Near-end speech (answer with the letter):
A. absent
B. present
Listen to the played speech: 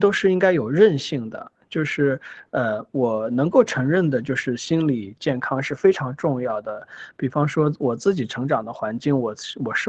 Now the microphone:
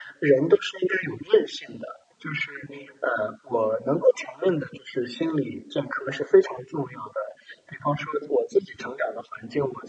A